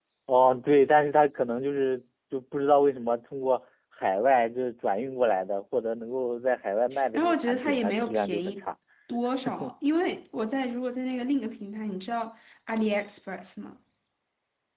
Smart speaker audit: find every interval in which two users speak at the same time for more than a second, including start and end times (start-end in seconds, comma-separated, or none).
7.1-8.6